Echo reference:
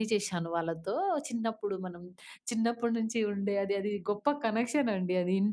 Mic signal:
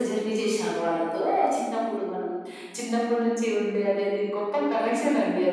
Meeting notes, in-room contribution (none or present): none